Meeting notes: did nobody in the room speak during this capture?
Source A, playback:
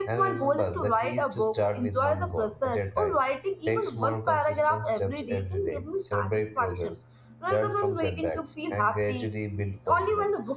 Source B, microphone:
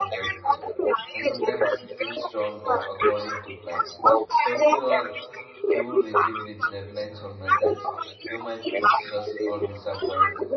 No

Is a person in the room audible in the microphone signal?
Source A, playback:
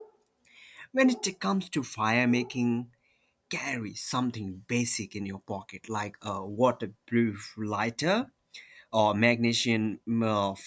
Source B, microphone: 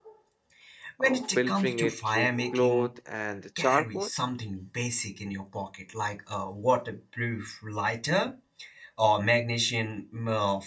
Yes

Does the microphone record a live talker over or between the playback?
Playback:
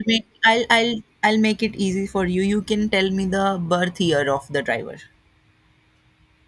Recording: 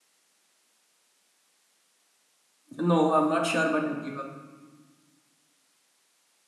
Yes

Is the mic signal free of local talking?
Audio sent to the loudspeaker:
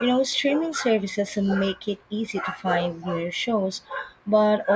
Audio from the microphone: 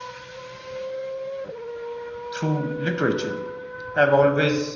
No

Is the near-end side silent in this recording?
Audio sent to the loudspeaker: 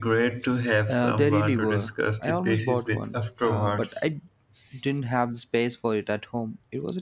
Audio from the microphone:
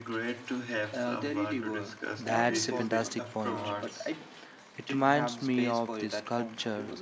No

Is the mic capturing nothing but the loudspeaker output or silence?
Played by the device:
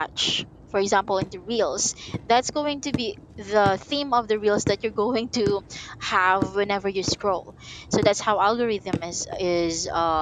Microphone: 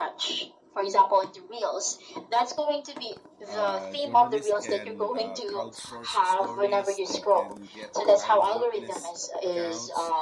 No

